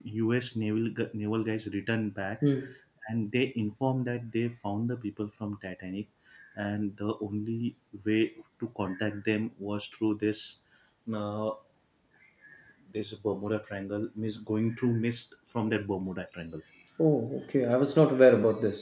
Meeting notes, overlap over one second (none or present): none